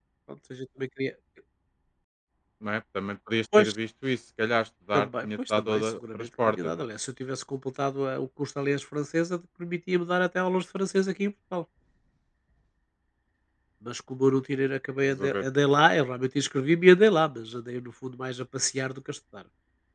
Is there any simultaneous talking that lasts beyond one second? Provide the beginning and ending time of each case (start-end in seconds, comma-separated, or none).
4.9-6.7